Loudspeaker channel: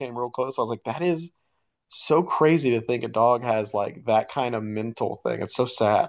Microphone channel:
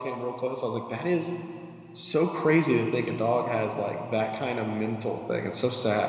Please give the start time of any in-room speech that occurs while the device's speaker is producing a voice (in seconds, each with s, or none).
none